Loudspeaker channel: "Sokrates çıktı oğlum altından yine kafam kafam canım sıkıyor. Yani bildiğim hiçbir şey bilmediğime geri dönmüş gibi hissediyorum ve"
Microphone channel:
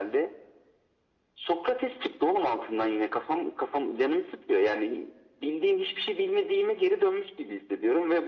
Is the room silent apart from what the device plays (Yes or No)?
Yes